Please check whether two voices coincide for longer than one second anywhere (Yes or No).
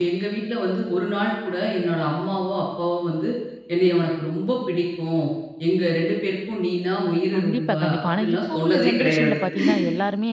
Yes